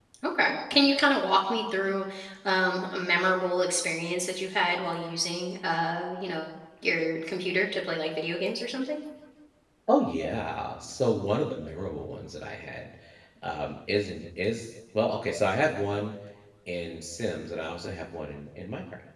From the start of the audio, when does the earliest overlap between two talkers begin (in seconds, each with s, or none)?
none